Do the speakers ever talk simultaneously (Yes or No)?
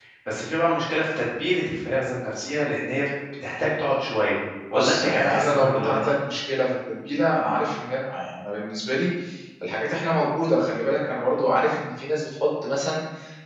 Yes